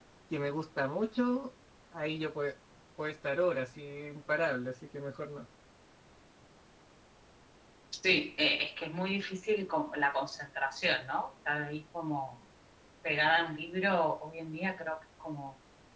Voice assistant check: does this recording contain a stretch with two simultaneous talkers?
No

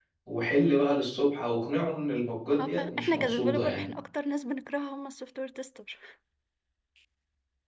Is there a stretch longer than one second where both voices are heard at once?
Yes, from 2.6 s

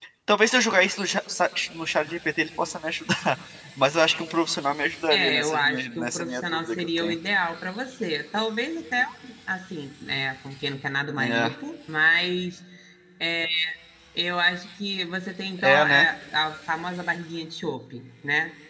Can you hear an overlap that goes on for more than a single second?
Yes, from 5.1 s

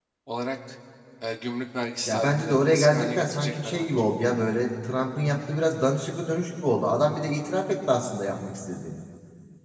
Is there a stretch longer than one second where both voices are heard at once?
Yes, from 2.1 s

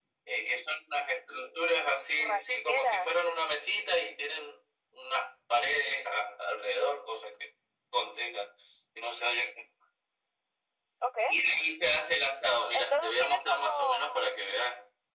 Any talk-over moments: Yes, from 2.1 s

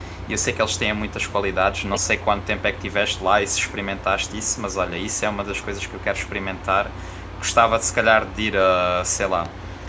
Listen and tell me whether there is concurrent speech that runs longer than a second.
No

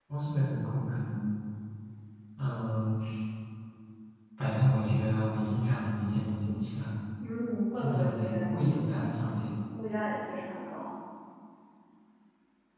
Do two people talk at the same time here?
Yes, from 7.8 s

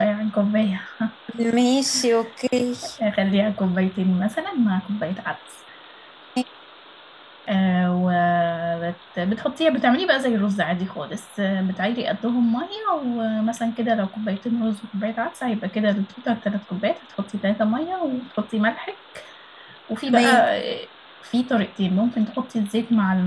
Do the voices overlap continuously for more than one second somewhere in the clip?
No

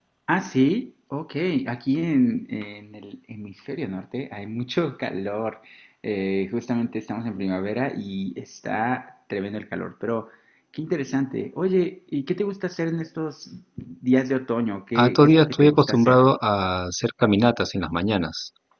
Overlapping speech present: Yes, from 14.9 s

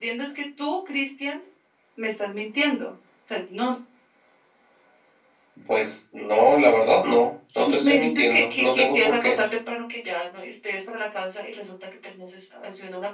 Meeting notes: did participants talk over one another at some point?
Yes, from 7.5 s

